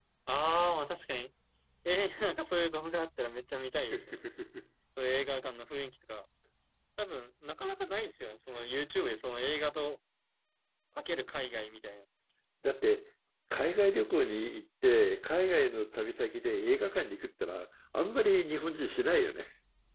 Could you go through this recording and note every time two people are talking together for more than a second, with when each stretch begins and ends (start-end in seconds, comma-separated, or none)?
none